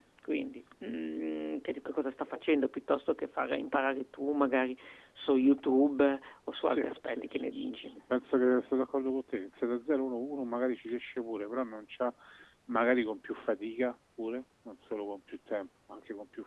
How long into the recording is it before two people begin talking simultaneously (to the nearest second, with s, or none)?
7 s